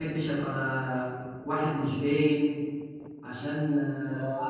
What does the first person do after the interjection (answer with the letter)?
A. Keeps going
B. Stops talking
B